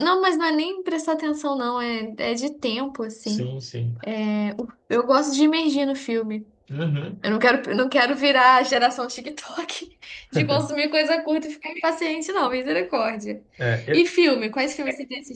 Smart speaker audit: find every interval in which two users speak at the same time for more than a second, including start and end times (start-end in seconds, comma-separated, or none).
none